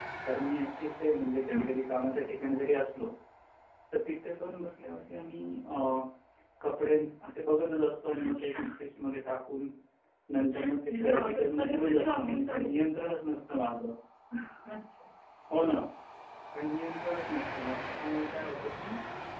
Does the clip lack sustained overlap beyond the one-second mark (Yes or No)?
No